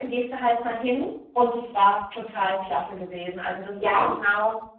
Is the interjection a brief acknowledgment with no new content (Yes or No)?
Yes